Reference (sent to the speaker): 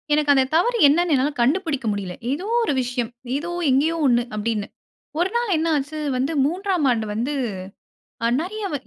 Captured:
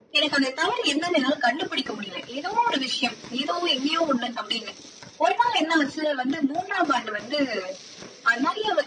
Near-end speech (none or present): none